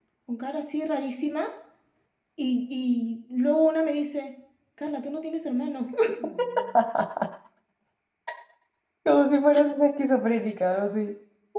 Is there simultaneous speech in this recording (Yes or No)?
No